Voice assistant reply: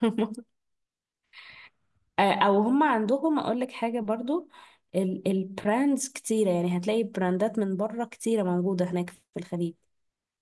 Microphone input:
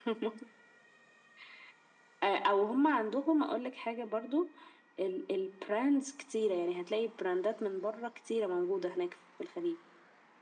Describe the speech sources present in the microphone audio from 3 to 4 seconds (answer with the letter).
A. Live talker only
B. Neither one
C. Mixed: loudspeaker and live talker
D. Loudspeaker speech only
D